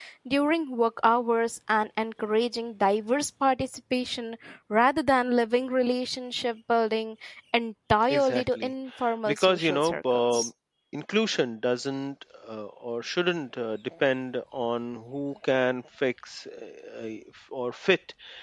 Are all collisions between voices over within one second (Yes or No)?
No